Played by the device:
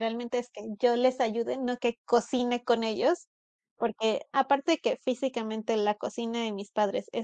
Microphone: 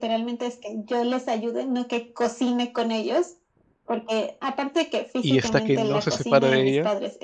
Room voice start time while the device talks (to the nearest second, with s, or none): 5 s